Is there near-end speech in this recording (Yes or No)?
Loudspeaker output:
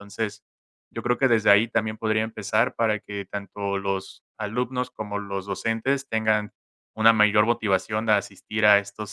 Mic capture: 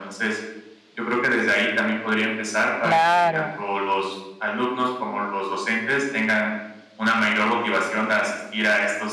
Yes